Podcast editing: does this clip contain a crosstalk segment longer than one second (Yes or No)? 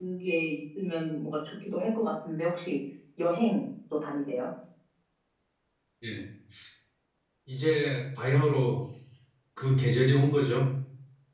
No